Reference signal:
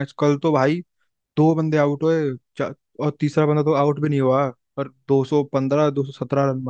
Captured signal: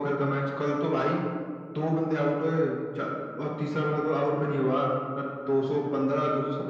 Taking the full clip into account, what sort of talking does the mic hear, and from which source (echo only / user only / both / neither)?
echo only